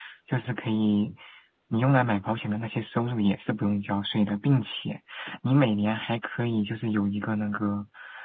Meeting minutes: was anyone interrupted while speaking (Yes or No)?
No